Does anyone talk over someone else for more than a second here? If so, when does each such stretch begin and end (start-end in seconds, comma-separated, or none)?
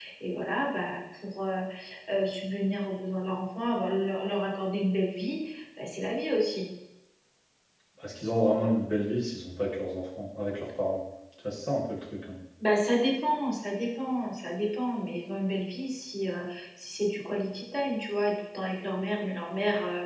none